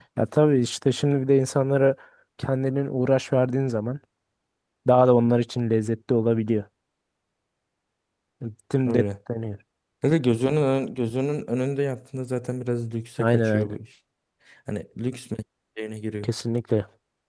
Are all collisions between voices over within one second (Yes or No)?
Yes